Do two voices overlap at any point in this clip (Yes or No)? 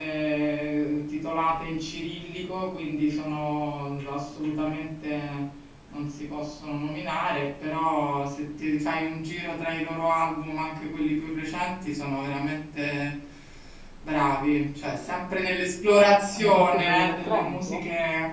Yes